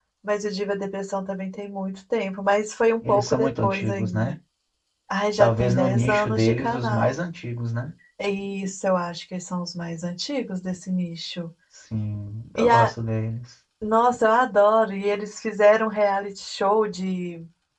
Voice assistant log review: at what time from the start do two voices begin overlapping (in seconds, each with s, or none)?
3.0 s